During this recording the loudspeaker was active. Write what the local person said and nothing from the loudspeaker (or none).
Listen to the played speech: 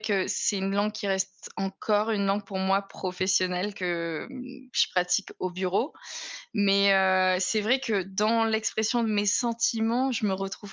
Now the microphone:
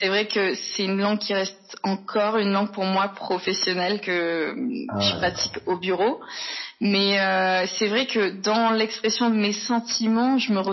Ah ouais, d'accord.